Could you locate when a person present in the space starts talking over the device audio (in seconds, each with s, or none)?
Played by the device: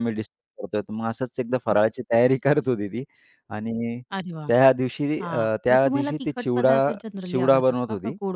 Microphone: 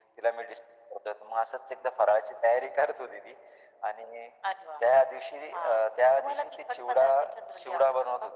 none